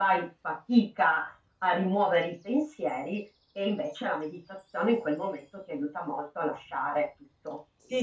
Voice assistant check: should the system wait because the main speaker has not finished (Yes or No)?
No